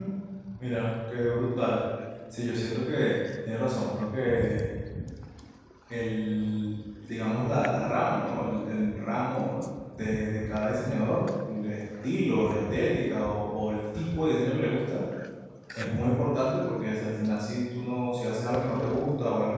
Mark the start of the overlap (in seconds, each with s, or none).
none